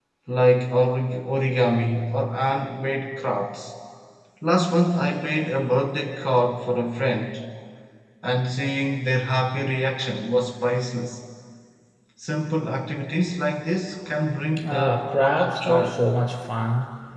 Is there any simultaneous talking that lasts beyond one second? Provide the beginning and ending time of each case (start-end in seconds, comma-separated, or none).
14.6-15.9